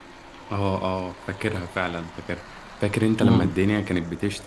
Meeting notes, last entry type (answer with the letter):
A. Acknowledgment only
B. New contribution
A